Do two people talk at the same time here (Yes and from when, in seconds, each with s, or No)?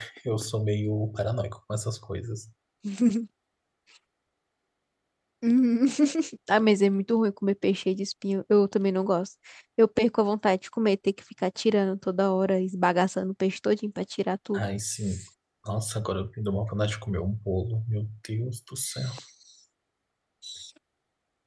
No